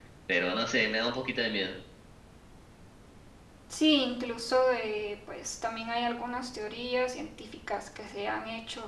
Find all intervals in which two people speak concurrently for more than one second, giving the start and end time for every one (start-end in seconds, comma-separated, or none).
none